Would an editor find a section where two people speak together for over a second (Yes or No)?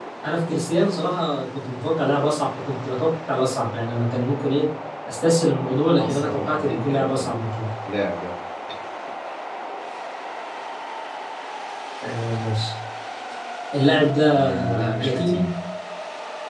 Yes